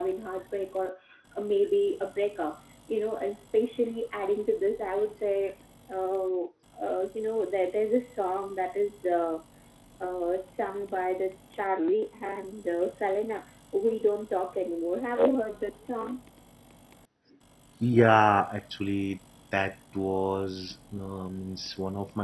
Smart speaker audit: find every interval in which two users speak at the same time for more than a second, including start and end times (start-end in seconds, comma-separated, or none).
none